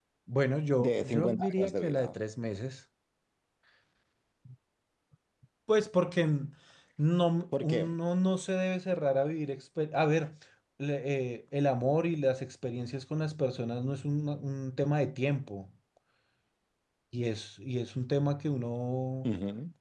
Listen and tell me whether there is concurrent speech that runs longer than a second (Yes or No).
Yes